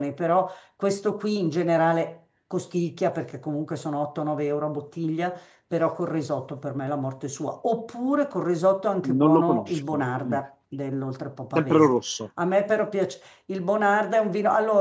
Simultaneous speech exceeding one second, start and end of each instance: 9.0-10.4

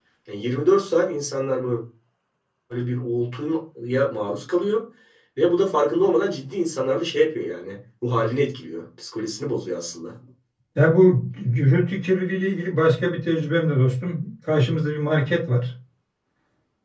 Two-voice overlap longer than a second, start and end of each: none

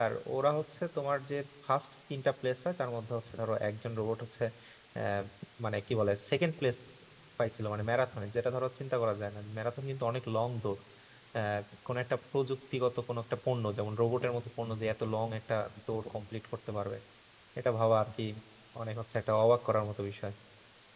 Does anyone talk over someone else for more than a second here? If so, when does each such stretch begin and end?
none

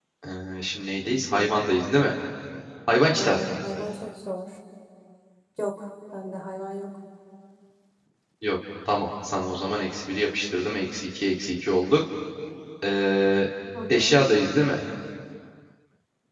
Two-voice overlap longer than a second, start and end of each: none

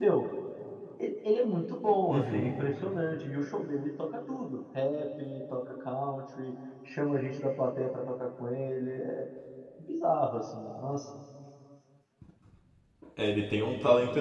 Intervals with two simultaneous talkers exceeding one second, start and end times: none

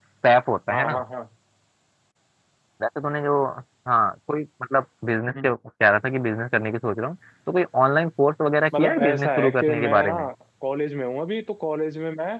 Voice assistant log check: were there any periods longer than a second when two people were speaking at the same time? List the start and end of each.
8.8-10.1

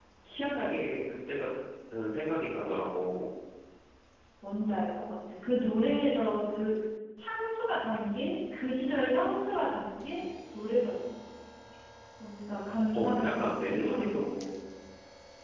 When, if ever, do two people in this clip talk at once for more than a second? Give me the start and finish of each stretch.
12.9-14.2

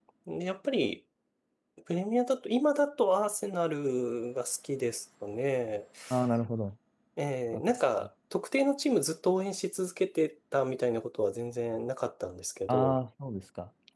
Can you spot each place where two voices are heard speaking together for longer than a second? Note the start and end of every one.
none

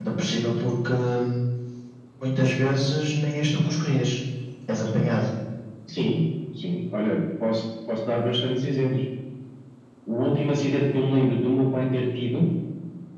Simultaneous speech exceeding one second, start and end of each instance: none

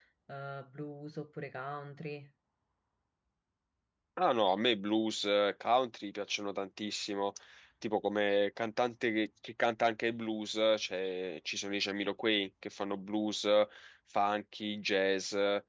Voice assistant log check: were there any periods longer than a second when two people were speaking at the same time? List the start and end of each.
none

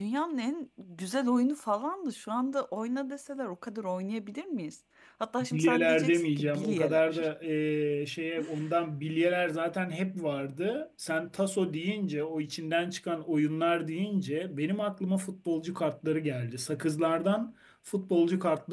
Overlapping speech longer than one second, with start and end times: 5.5-7.3

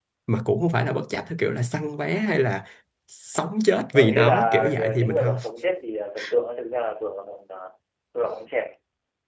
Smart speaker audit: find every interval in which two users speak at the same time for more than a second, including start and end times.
3.9-5.3

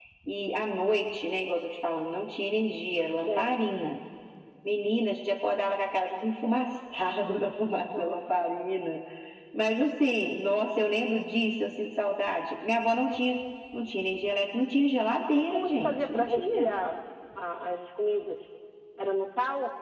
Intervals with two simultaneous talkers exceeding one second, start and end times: 15.3-16.7

